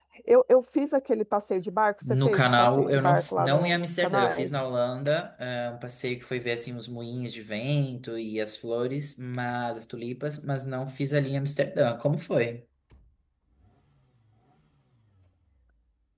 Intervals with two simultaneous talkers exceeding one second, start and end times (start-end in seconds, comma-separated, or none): 2.2-4.5